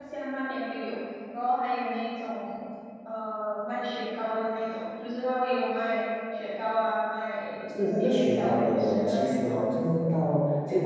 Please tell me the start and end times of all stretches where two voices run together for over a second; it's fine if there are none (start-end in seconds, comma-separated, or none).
7.8-9.6